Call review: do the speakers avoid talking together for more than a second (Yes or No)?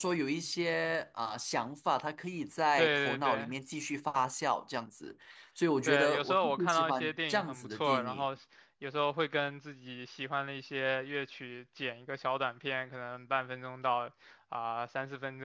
No